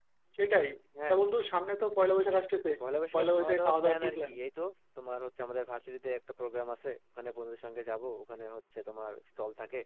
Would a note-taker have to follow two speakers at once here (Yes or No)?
Yes